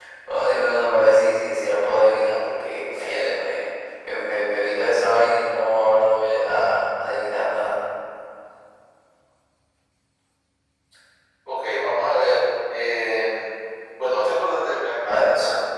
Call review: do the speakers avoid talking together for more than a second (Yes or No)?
Yes